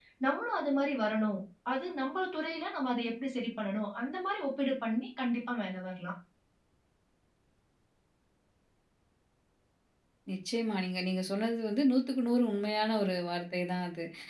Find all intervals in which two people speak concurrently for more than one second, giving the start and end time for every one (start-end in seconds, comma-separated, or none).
none